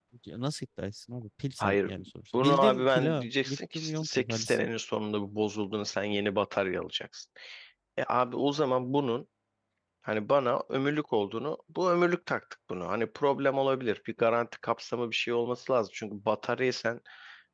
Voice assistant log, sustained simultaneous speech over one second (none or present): present